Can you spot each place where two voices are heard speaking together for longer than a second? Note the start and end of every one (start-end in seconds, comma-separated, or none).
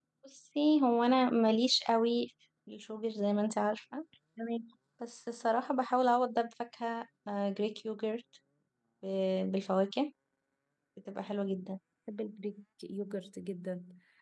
none